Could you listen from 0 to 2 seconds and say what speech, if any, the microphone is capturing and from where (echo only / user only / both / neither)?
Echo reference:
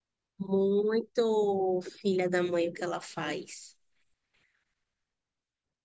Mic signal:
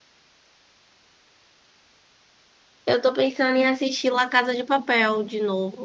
neither